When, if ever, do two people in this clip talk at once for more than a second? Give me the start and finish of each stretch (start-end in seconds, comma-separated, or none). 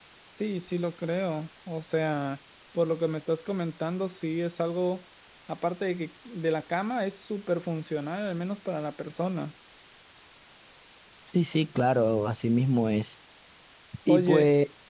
none